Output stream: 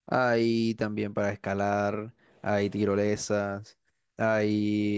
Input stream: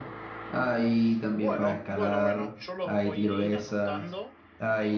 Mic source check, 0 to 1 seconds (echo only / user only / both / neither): echo only